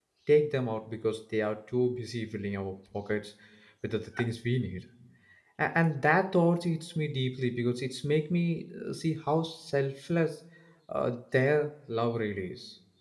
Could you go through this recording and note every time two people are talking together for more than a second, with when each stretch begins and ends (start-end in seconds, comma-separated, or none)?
none